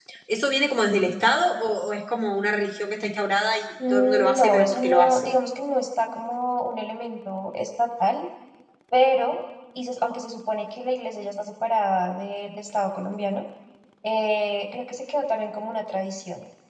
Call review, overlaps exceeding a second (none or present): present